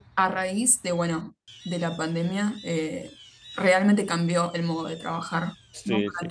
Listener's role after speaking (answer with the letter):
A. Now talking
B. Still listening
A